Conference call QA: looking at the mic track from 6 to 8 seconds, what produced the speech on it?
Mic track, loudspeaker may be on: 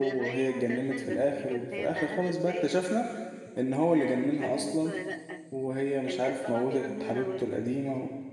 both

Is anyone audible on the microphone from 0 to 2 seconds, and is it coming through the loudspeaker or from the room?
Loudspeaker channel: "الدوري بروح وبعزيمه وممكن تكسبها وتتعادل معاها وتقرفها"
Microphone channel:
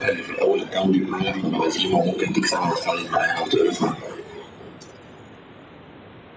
echo only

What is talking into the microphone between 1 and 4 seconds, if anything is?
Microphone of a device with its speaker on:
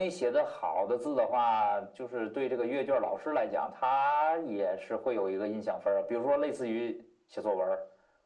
echo only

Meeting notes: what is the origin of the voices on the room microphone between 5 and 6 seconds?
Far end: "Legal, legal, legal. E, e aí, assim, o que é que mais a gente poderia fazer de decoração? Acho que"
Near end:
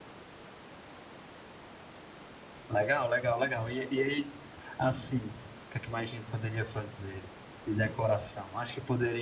echo only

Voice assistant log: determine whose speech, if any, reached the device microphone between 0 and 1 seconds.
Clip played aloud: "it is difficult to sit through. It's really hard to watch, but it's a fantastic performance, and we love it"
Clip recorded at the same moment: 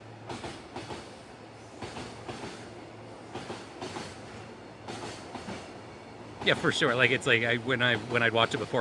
neither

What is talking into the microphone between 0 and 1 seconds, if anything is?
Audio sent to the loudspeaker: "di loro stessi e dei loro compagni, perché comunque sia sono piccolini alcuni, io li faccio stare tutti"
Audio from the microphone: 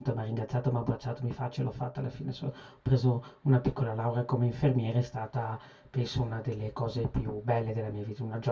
user only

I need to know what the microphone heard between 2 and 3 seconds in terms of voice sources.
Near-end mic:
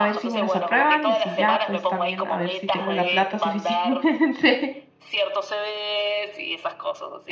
both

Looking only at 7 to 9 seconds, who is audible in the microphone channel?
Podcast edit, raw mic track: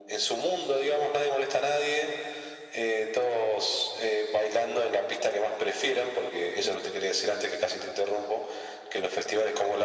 echo only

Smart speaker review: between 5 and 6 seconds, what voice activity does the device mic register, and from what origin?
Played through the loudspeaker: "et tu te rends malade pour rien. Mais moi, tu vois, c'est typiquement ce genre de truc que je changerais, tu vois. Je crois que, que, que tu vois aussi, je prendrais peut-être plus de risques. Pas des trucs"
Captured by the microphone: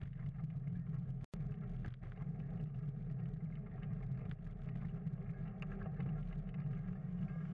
neither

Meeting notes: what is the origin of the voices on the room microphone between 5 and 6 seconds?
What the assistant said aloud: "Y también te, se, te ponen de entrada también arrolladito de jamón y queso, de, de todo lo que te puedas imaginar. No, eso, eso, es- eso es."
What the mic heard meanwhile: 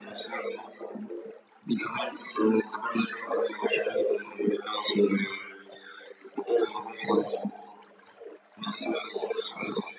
echo only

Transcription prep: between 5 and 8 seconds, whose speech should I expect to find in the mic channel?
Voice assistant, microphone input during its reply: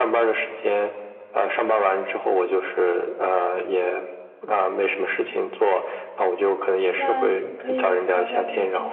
both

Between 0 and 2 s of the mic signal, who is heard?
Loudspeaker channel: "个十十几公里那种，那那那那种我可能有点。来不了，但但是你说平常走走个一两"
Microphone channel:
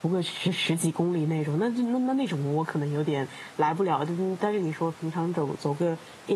echo only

